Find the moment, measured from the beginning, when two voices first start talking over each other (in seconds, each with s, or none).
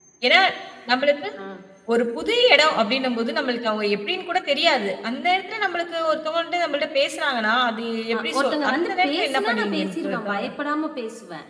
8.4 s